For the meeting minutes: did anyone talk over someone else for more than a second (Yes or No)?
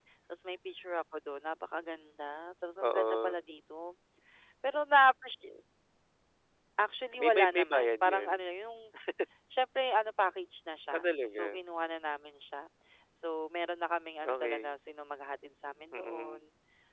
Yes